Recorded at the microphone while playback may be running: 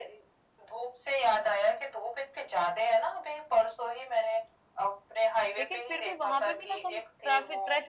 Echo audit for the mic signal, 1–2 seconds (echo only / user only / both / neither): echo only